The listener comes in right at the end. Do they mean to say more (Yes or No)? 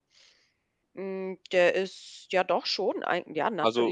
Yes